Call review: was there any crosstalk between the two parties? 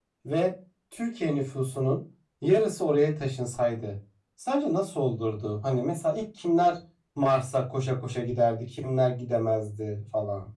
No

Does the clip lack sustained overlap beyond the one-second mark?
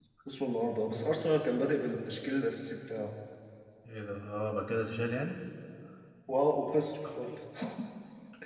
Yes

